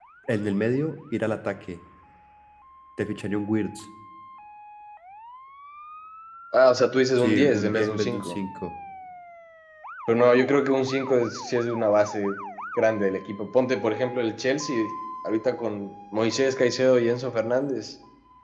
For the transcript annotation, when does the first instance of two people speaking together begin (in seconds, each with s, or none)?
7.2 s